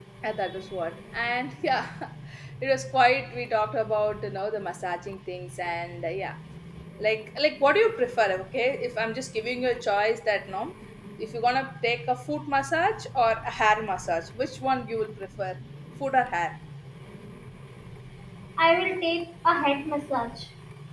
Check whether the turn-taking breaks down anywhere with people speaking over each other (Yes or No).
No